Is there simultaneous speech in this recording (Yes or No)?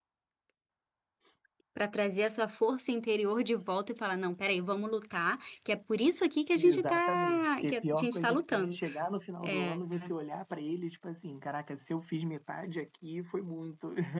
Yes